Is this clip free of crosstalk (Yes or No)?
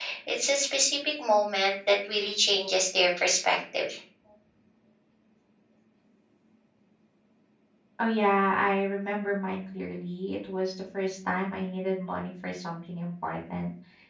Yes